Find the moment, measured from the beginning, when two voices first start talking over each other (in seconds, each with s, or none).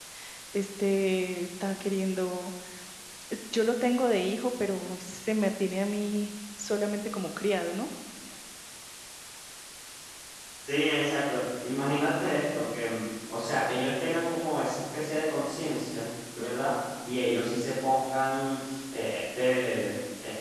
none